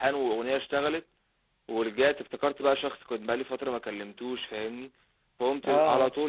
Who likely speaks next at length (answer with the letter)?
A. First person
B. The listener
A